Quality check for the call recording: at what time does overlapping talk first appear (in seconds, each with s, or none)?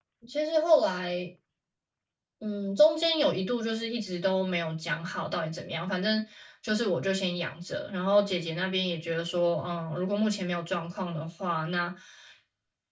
none